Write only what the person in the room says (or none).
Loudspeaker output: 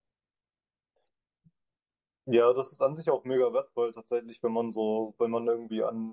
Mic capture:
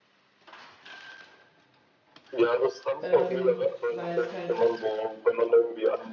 ähm, weil es halt